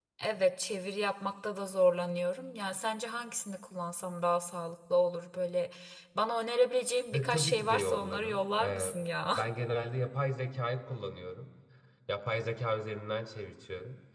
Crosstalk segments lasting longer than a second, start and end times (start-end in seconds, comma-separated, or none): 7.1-8.9